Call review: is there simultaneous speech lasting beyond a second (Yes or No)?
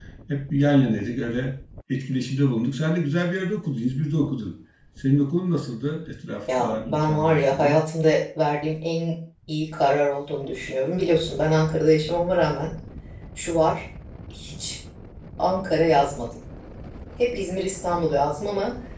Yes